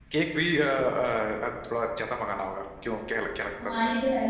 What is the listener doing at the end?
taking over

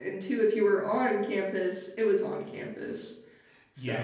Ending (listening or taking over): taking over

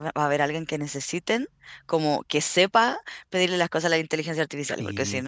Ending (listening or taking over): listening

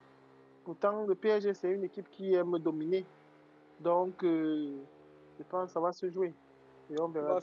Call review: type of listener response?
taking over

